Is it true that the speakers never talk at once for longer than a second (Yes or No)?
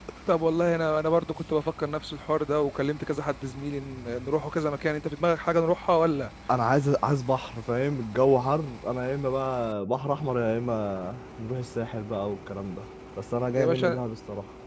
Yes